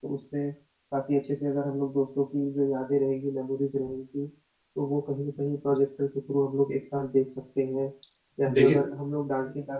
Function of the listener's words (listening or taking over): listening